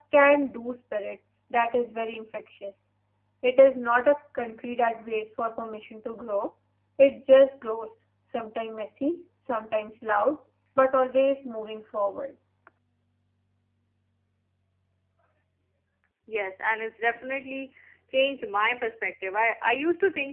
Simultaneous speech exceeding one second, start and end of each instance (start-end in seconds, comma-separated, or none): none